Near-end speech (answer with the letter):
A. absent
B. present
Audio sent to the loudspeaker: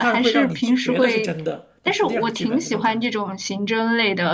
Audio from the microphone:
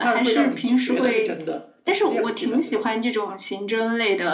A